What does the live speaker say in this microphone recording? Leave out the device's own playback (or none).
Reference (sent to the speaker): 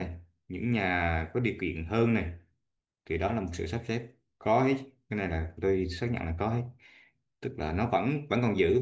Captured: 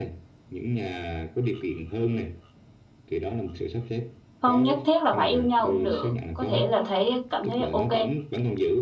không nhất thiết là phải yêu nhau cũng được có thể là thấy cảm thấy ok